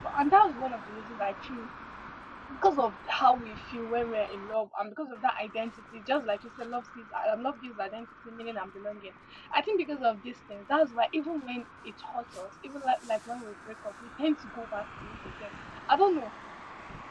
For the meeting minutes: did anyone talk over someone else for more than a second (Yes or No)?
No